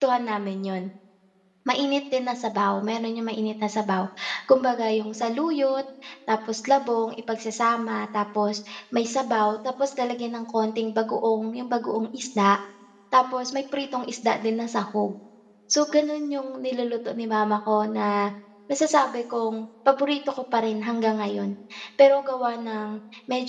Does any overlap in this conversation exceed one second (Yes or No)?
No